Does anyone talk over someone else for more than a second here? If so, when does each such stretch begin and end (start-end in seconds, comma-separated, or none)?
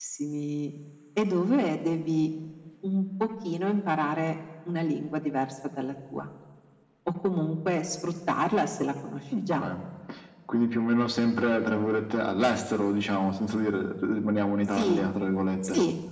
none